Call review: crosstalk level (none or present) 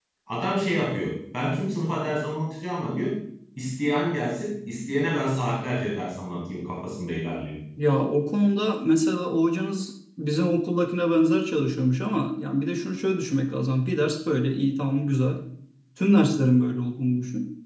none